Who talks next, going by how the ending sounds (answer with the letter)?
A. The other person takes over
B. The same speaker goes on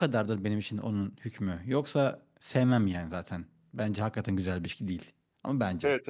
A